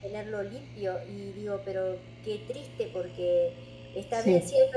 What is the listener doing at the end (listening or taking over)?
listening